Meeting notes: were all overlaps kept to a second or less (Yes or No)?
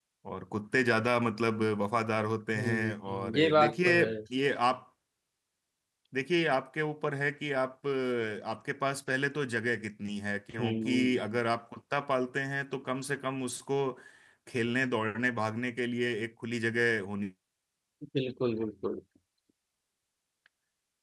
No